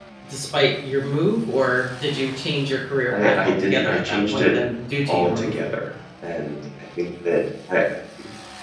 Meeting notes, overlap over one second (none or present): present